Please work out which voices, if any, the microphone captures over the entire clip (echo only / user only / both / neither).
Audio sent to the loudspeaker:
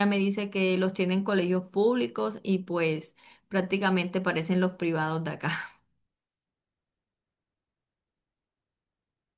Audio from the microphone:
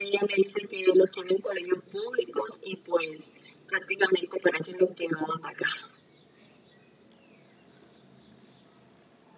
echo only